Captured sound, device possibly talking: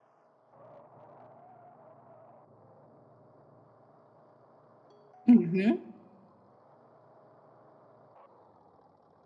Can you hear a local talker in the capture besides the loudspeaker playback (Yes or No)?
Yes